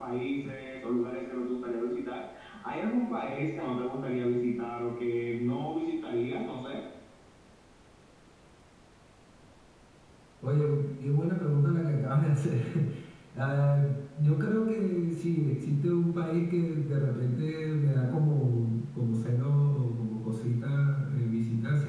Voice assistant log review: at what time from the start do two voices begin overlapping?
none

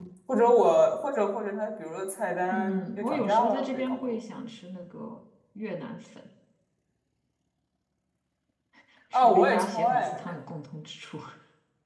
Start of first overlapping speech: 2.5 s

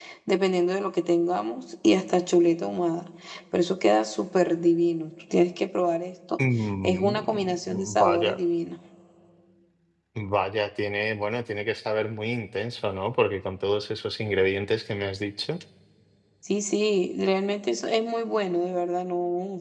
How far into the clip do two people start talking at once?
6.8 s

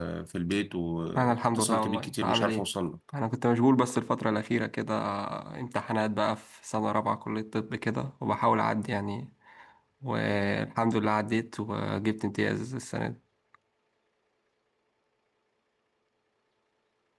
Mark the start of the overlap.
1.2 s

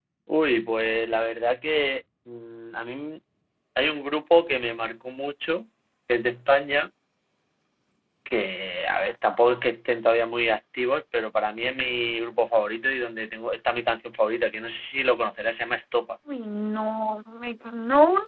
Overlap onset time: none

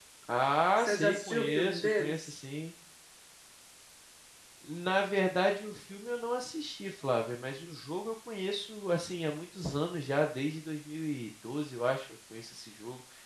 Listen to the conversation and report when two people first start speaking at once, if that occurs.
0.8 s

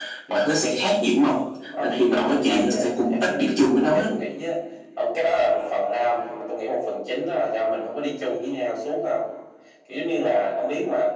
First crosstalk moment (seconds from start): 1.7 s

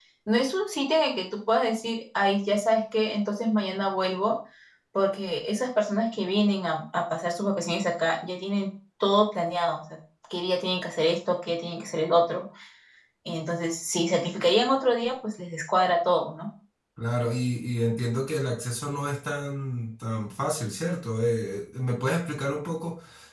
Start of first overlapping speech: none

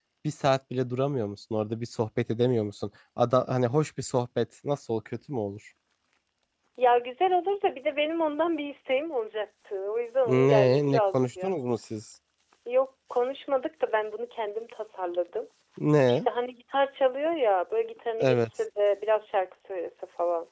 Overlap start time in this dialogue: 10.2 s

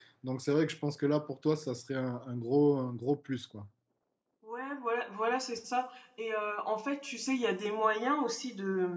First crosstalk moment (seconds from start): none

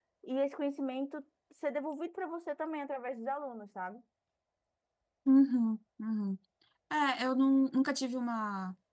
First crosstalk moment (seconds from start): none

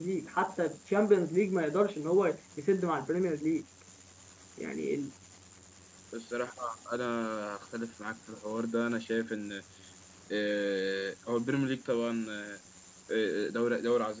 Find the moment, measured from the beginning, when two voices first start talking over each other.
none

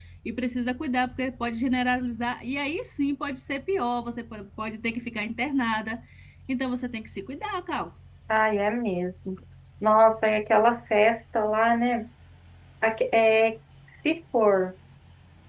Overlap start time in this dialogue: none

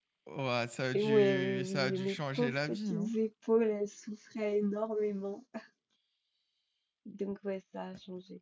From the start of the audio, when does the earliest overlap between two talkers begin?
0.9 s

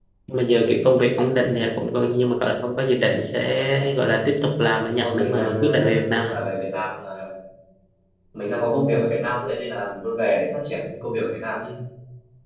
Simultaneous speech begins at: 4.8 s

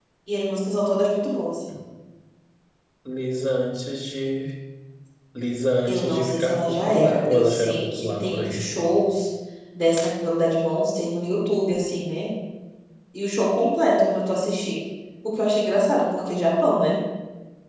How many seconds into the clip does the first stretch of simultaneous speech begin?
5.9 s

